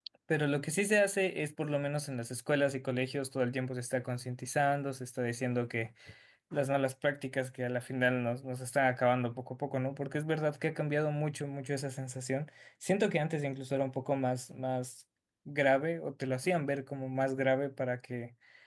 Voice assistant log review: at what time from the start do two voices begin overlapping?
none

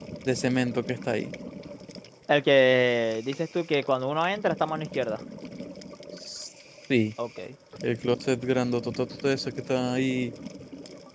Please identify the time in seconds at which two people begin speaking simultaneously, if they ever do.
none

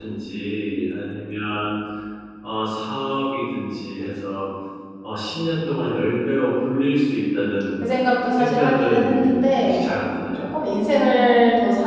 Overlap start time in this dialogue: 8.3 s

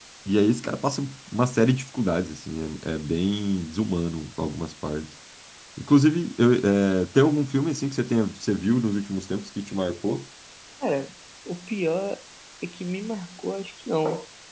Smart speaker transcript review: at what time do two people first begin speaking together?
none

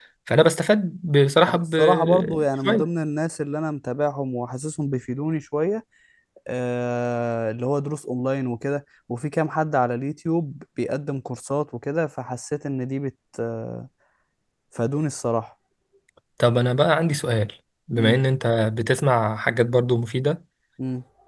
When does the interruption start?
1.5 s

